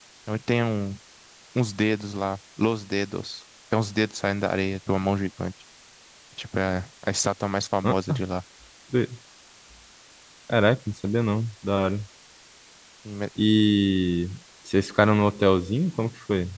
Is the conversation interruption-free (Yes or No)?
Yes